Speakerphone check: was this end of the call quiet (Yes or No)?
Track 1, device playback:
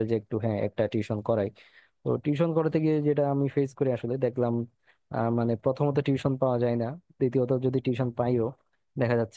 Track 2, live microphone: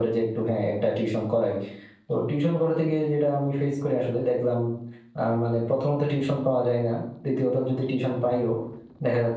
Yes